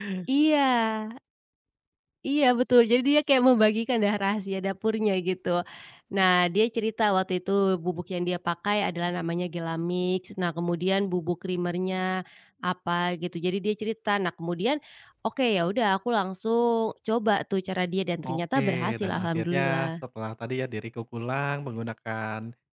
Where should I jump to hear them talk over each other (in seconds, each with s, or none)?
18.2 s